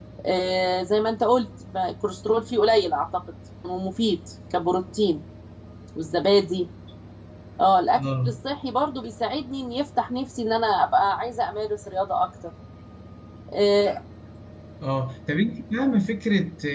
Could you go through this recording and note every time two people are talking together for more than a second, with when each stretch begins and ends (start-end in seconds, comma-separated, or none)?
none